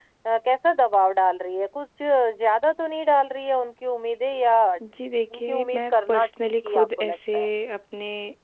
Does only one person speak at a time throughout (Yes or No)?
No